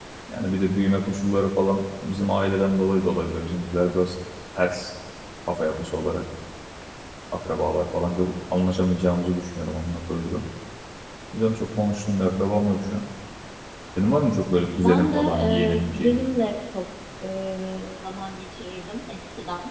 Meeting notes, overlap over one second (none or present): present